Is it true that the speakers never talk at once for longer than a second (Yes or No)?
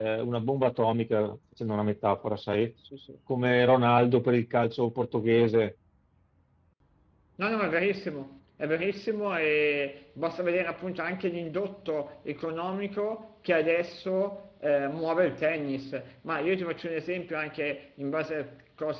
Yes